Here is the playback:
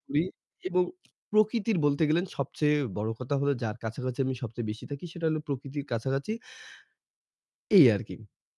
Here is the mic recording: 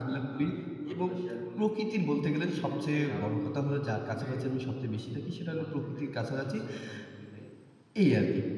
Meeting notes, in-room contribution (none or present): present